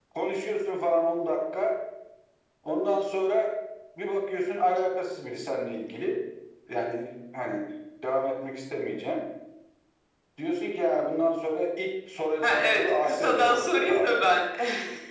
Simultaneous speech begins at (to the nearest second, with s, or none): 12 s